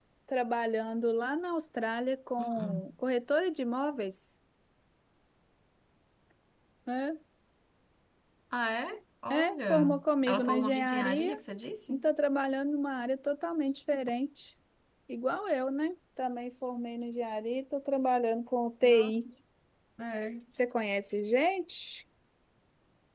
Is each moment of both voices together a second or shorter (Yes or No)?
No